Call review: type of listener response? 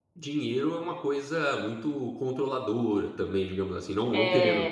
listening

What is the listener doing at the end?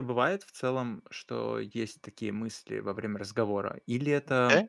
listening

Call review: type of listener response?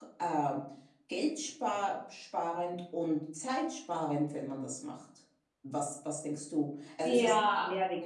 listening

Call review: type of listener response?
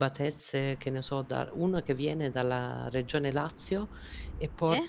listening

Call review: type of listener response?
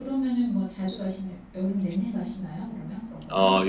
taking over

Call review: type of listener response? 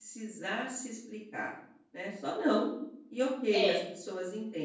listening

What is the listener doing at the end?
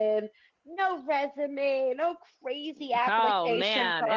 taking over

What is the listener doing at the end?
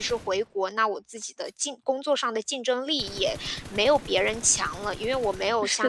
listening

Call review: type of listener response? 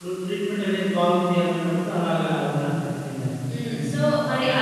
taking over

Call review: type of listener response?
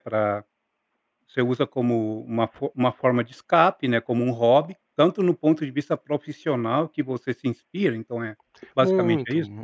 taking over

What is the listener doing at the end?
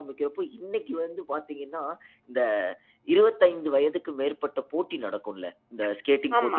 listening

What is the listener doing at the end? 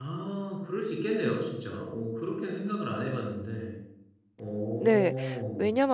taking over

